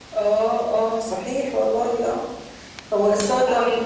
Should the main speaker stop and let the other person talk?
No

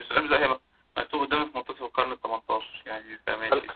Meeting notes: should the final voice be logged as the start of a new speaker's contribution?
Yes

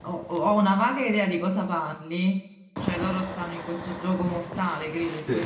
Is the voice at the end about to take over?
Yes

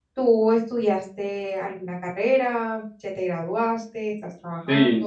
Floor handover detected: Yes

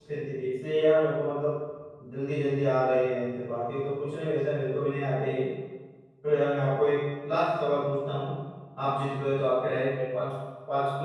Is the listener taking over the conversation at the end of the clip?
No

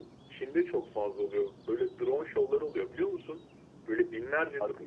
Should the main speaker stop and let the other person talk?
No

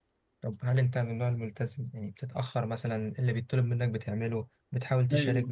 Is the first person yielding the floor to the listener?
Yes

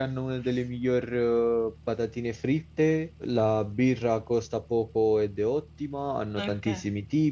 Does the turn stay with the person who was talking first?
Yes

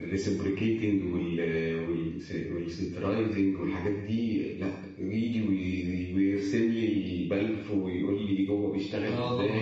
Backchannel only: No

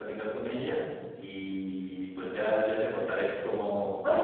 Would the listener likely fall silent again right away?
No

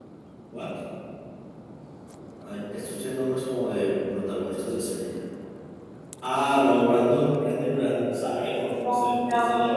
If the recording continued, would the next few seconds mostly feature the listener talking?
Yes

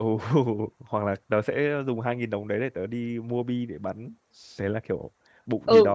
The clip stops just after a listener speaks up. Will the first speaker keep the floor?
No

